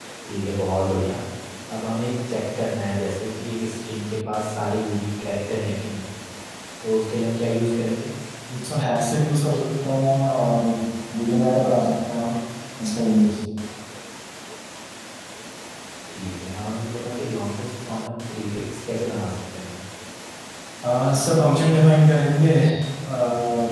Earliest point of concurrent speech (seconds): none

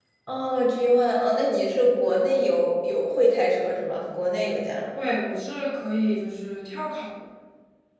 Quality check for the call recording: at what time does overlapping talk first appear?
none

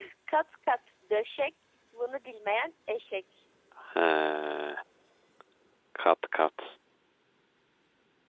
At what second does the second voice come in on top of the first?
none

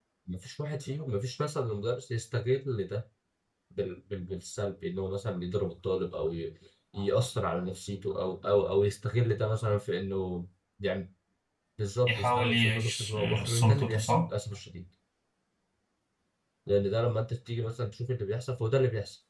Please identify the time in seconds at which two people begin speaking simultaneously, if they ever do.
12.1 s

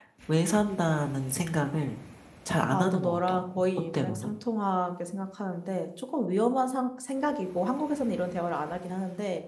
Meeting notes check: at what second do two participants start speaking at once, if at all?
2.7 s

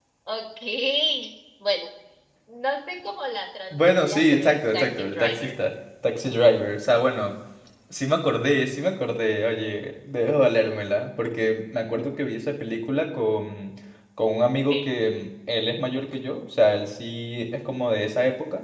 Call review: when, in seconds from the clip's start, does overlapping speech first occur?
3.7 s

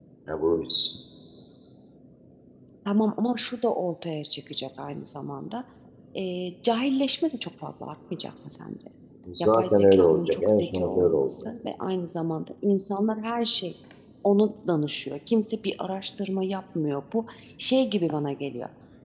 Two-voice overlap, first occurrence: 9.4 s

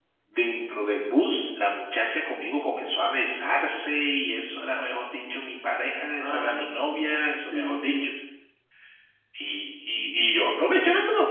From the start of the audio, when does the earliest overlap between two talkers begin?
6.2 s

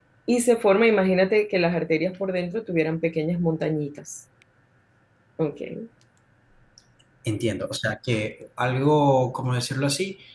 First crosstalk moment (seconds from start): none

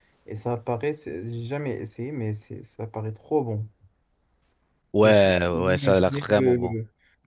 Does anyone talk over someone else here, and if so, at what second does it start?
5.0 s

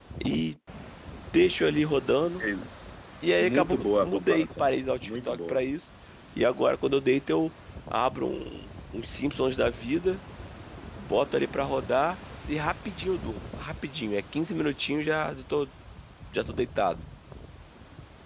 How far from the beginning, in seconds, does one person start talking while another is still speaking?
3.4 s

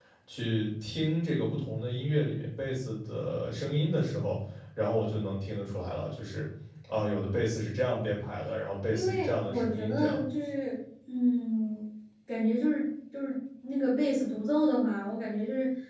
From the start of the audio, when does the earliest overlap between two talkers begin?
8.9 s

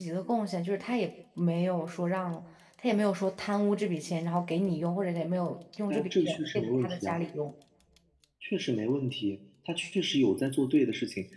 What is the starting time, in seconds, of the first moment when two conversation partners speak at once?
5.9 s

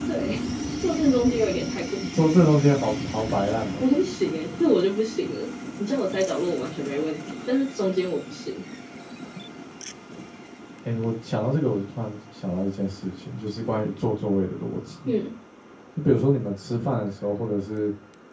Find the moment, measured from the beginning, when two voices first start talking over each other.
none

